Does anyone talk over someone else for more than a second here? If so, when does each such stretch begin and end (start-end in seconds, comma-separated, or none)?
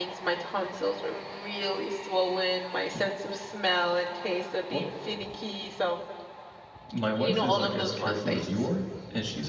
7.2-8.7